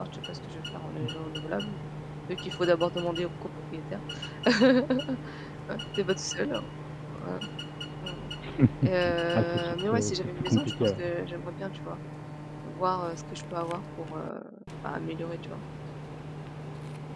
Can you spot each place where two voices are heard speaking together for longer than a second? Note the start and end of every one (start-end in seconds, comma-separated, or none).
9.3-11.0